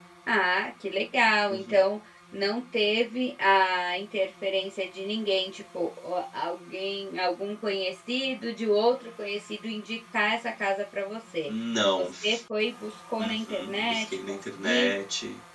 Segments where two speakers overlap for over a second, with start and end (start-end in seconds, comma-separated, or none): 13.2-14.9